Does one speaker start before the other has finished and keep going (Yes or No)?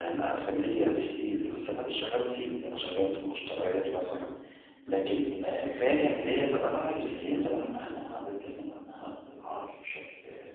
Yes